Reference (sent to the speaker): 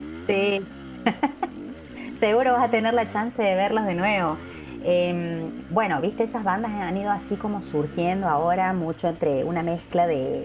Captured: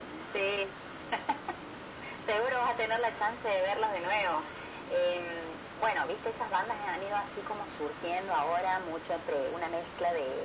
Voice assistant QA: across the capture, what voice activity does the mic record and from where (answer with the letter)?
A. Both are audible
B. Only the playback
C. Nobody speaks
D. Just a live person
B